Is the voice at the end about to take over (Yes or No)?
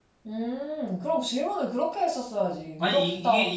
Yes